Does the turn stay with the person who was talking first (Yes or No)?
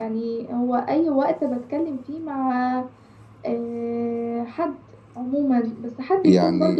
Yes